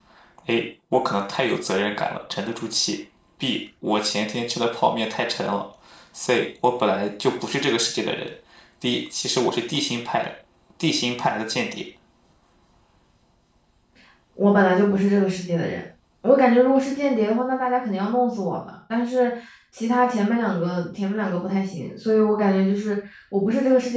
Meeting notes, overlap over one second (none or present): none